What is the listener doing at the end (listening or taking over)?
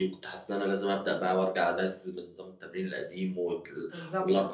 listening